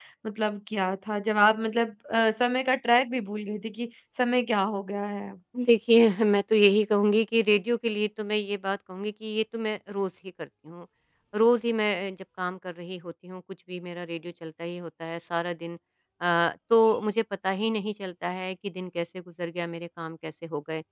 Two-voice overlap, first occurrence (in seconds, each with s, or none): none